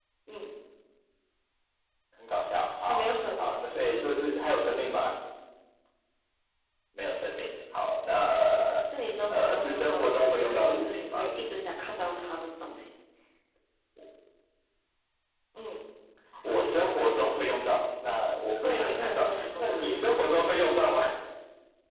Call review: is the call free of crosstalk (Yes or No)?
No